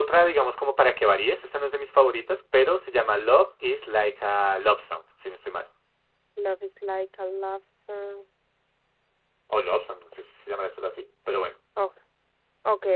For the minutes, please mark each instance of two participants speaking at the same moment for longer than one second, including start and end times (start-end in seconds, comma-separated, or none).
none